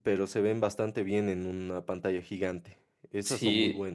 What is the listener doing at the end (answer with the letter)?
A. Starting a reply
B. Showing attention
A